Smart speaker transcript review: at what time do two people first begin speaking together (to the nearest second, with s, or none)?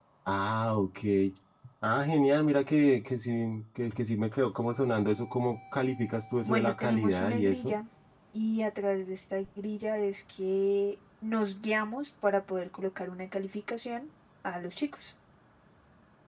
6 s